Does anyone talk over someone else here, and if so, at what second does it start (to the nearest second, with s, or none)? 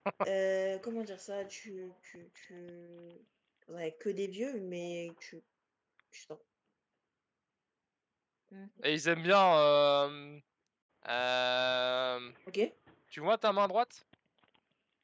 none